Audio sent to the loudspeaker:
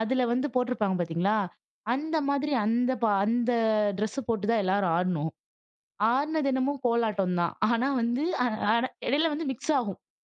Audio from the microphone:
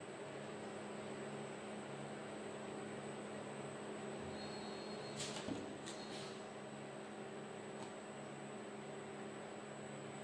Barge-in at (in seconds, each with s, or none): none